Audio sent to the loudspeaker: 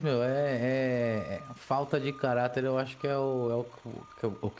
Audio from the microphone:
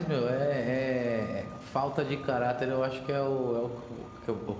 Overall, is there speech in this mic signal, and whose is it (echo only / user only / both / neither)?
echo only